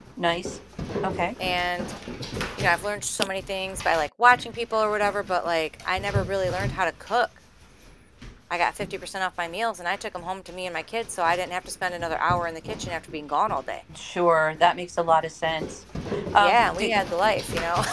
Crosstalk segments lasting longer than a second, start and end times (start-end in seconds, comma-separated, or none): none